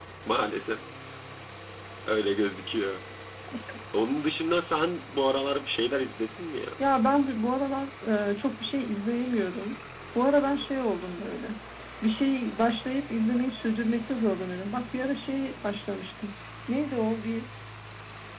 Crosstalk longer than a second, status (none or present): none